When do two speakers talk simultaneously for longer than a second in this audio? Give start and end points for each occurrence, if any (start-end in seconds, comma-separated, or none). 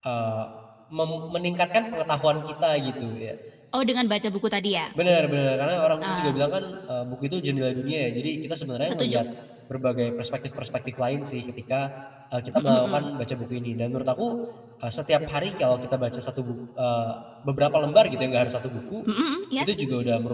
none